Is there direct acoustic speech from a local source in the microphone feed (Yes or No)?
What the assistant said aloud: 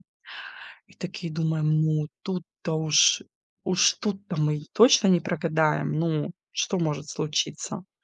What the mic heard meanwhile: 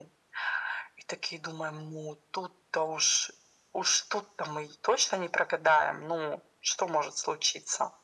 No